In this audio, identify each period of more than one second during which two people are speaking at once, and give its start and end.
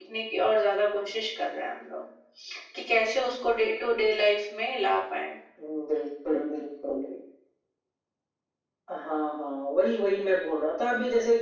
none

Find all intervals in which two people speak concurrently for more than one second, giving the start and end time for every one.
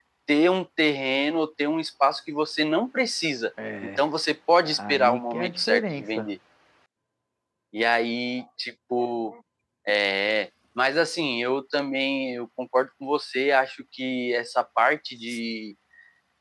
4.6-6.3

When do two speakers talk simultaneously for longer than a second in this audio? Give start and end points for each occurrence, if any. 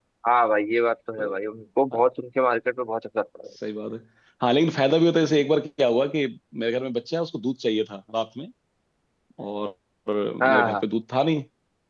none

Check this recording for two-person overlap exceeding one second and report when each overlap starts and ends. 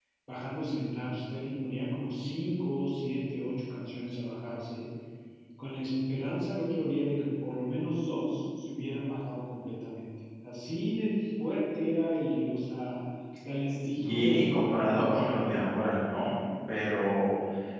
13.8-15.4

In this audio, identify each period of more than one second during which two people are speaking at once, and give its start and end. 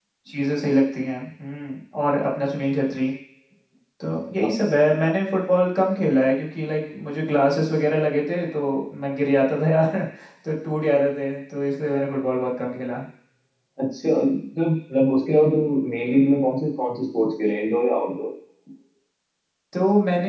none

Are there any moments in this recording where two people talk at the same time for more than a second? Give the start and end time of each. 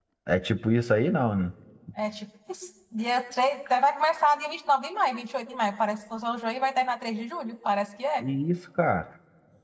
none

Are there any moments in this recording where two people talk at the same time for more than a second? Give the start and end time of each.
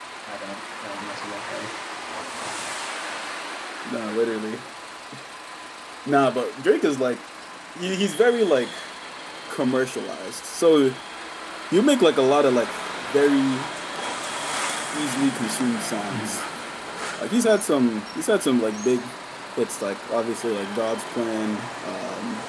none

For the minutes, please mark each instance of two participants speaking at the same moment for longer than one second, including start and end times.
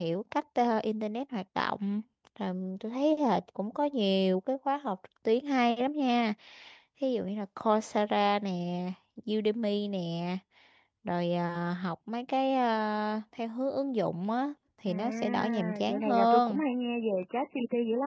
14.9-16.6

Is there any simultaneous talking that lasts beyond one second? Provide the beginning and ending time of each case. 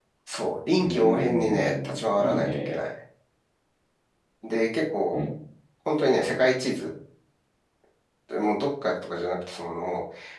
0.8-2.8

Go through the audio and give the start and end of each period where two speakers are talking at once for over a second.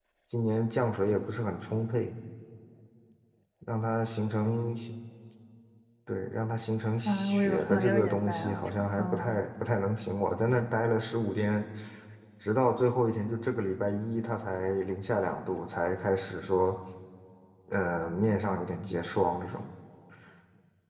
7.0-9.4

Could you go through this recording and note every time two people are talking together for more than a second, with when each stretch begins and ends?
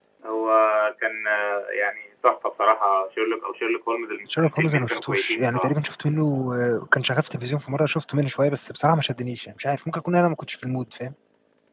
4.3-5.7

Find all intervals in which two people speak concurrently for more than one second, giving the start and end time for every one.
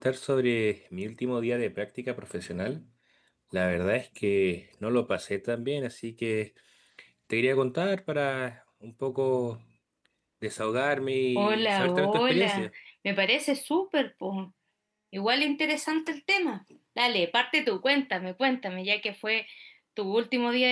11.3-12.7

